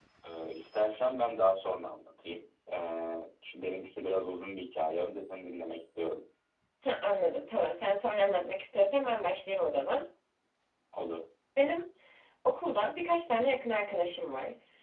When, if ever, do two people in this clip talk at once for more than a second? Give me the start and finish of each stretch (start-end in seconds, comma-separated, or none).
none